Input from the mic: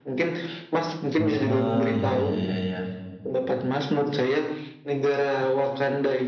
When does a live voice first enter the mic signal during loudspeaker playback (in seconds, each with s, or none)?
1.2 s